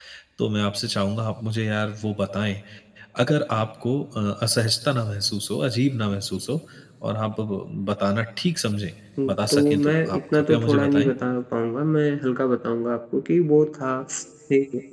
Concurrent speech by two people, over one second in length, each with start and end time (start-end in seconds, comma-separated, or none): 9.3-11.1